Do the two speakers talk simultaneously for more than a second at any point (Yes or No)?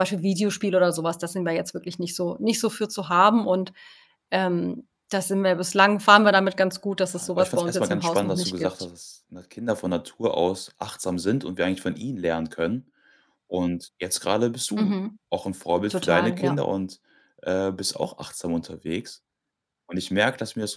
Yes